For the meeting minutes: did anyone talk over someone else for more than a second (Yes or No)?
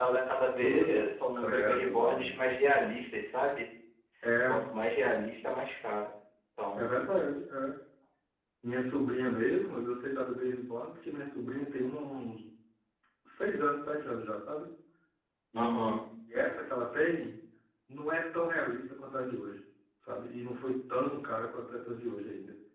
Yes